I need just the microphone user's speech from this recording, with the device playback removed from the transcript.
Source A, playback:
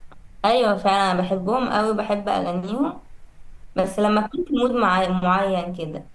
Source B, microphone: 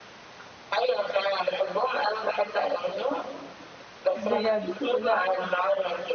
بجد لا

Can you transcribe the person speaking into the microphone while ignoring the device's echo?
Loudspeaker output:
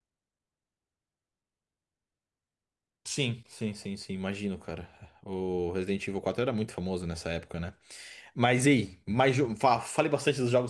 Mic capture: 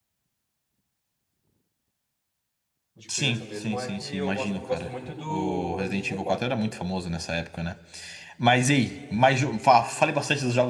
de criança mesmo, é que eu gosto, gosto muito do Resident Evil quatro cara.

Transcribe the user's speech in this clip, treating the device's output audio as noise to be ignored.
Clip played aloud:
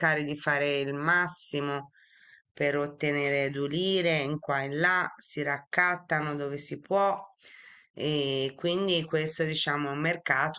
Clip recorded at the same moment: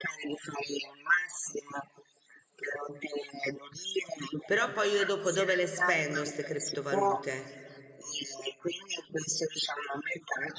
però poi io dopo dove le spendo queste criptovalute?

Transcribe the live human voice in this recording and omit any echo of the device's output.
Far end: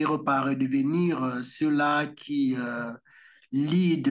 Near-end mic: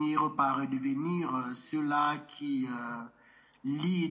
none

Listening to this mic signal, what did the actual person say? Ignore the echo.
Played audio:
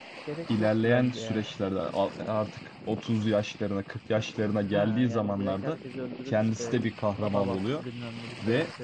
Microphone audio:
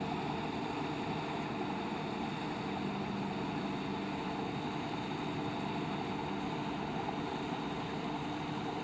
none

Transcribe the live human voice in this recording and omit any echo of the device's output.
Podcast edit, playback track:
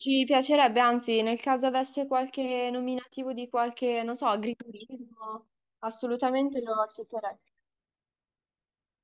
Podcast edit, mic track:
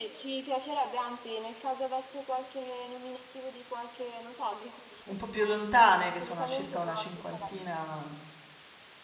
un po' più lontane, che sono circa una cinquantina

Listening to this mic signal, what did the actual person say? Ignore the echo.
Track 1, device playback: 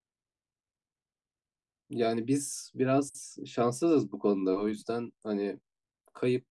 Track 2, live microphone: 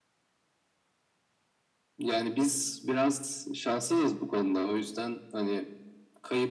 none

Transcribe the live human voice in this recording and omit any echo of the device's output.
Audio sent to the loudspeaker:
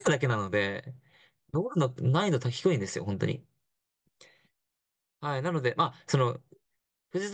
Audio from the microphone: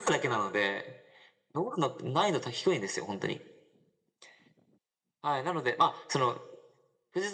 none

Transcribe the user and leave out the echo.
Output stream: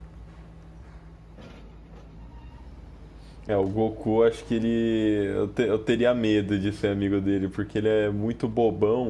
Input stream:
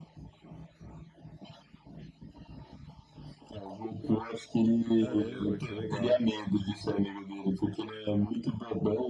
Caramba, que legal.

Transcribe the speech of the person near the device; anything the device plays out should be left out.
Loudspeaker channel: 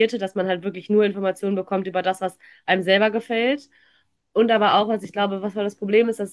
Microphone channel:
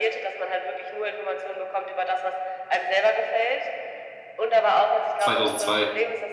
2002.

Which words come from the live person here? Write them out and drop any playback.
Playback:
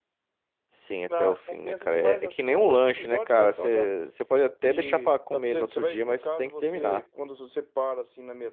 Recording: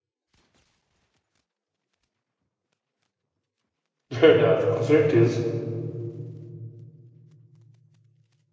Verdade, com certeza.

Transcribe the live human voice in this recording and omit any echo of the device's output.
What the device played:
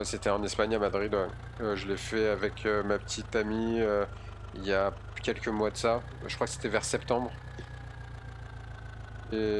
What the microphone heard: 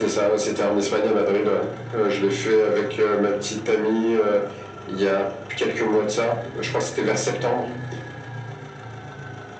none

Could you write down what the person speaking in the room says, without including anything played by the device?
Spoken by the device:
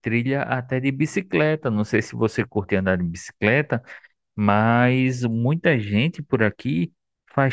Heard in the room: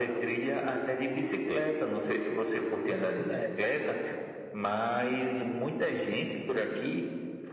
É verdade, né?

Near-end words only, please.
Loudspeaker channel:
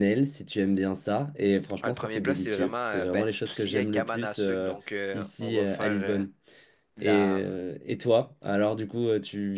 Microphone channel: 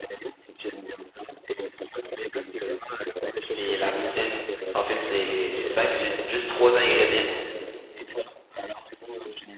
c'est la poutine. En fait, c'est c'est simple, c'est juste trois ingrédients.

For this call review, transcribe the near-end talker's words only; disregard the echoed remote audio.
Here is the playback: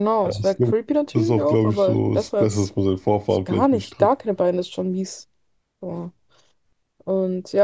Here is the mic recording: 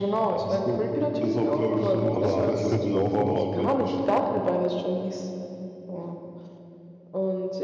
aber ich könnte laufen noch

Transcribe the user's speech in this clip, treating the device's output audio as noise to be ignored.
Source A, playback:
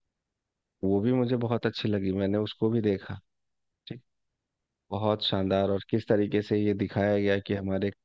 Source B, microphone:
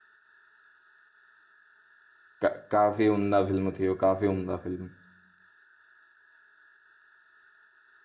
का, काफी उम्दा फिल्म थी वो काफी उम्दा फिल्म

